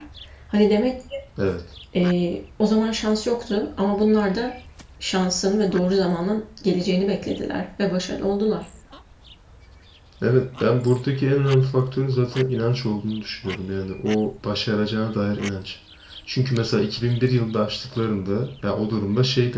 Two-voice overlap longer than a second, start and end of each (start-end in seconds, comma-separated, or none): none